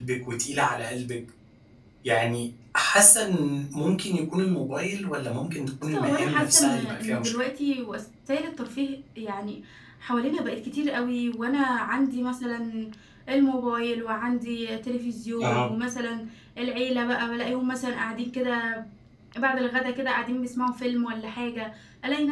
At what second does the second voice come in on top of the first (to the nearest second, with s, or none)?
6 s